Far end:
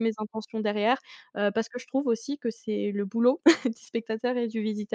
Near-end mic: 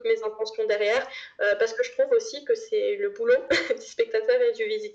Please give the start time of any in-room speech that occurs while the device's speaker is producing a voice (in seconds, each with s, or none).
none